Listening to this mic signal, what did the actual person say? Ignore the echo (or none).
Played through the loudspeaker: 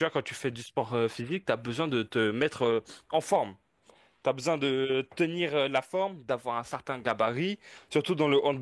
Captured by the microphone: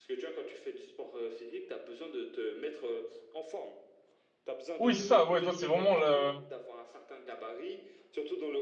Oui, c'est ça, ouais, toi, c'est vraiment le...